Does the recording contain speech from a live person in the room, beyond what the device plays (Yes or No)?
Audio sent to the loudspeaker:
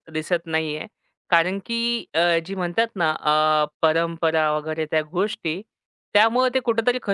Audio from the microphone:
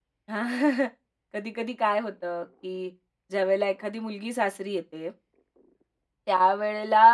Yes